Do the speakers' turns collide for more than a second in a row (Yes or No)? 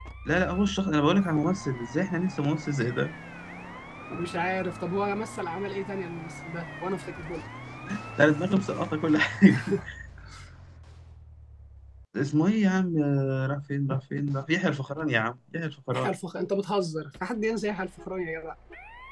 No